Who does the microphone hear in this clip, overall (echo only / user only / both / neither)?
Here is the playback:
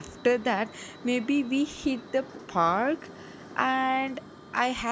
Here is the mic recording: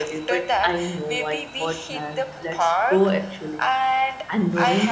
both